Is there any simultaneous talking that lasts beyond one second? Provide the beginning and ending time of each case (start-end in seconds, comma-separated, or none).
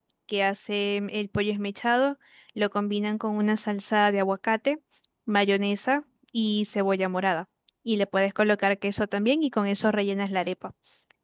none